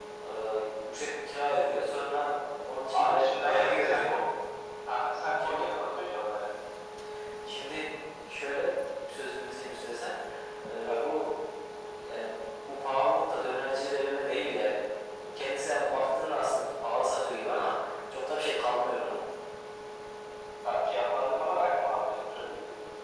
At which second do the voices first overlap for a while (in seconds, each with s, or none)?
2.9 s